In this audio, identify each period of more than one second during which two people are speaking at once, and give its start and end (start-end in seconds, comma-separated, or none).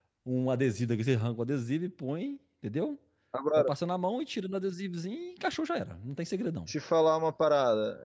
none